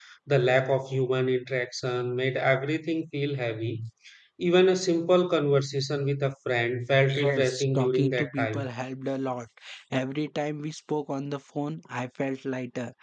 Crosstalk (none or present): present